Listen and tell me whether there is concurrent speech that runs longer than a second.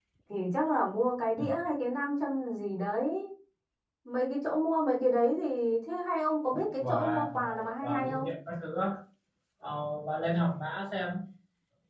Yes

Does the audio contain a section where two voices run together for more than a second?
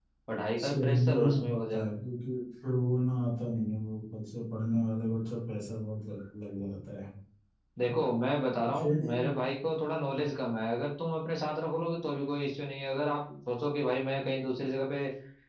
Yes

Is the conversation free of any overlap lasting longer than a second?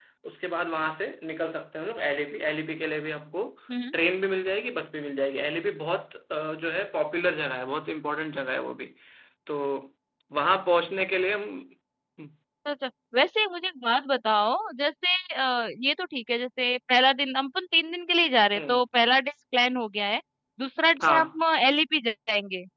Yes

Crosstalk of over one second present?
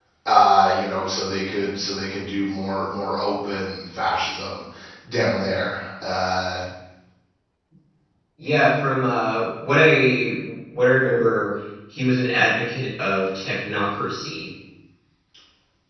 No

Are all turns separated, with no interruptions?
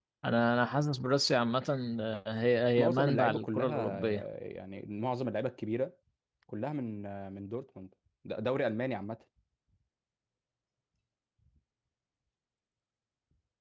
No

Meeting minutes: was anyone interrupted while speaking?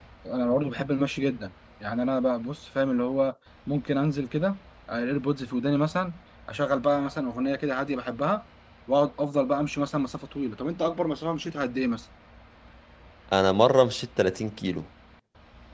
No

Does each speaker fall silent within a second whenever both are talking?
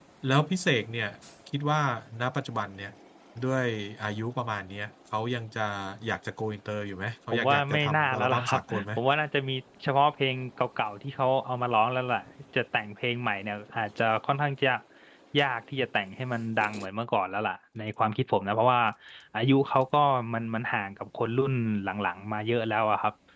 No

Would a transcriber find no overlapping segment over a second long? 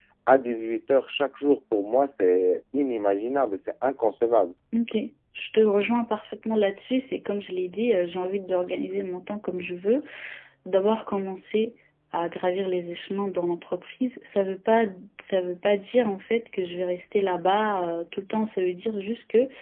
Yes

